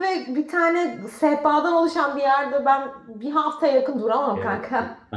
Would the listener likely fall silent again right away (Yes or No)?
No